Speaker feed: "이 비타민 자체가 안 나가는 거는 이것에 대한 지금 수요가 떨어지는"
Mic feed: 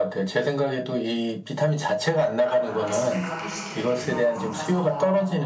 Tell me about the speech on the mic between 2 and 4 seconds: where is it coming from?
both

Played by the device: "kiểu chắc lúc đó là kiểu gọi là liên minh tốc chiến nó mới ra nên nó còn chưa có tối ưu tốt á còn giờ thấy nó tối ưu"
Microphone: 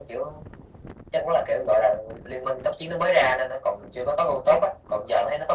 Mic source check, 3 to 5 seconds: echo only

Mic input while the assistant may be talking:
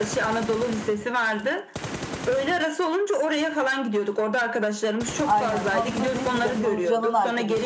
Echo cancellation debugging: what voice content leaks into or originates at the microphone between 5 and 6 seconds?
both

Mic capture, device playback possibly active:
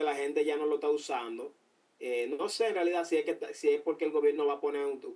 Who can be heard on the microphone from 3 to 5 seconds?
echo only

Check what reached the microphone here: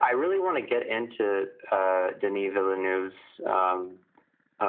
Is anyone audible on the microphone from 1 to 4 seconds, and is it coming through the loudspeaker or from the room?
echo only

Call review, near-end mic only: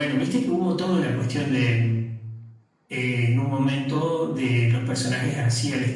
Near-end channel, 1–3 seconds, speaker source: echo only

